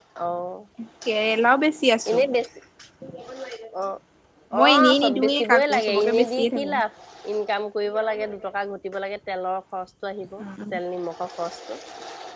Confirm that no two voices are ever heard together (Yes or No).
No